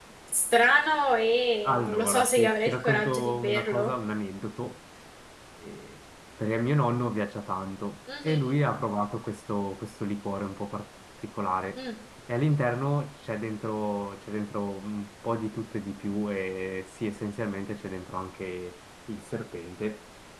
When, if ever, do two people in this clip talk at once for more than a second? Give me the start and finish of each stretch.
1.7-3.9

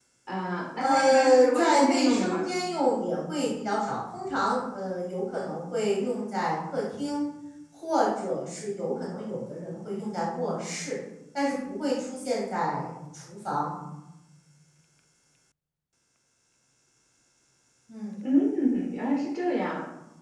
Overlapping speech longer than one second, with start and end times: 0.8-2.5

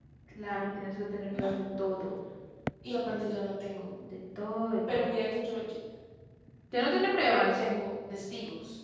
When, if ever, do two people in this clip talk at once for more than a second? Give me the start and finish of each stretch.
none

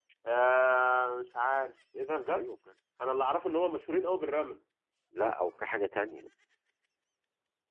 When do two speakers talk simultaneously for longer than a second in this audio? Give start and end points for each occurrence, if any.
none

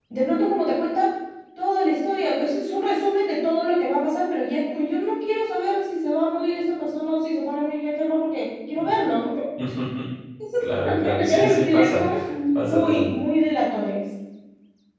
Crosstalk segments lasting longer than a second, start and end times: 10.6-12.0

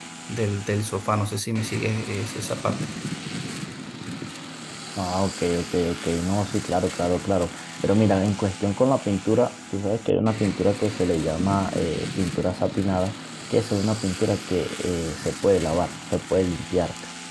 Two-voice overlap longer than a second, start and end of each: none

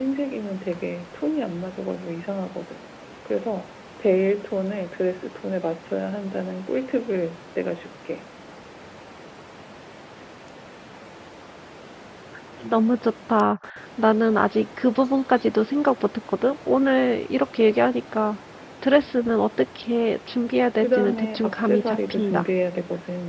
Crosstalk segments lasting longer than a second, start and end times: 20.8-22.4

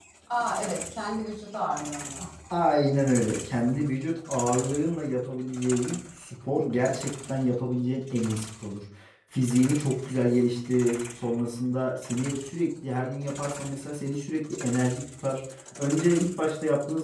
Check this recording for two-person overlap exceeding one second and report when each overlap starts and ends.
none

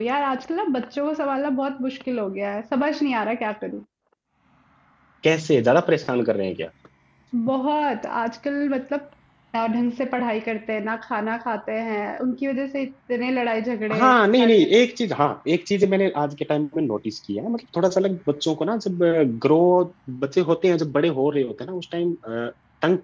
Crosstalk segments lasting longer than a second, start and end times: none

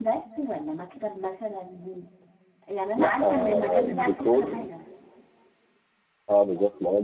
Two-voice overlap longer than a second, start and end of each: 3.0-4.6

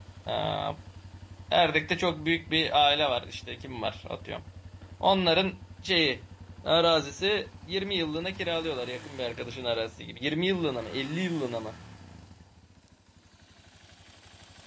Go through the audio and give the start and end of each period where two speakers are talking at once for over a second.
none

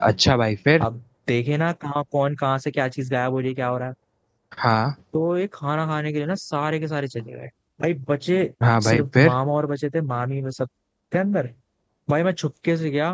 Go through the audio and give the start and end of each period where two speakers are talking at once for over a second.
none

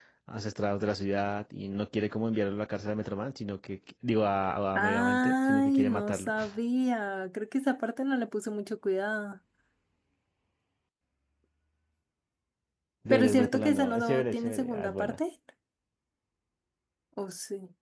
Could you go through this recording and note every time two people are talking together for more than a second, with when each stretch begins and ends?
4.8-6.3, 13.1-15.2

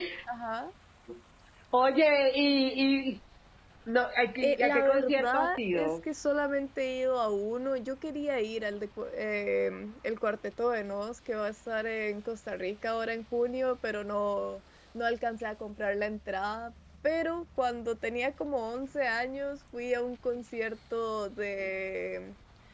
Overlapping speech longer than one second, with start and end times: 4.4-6.0

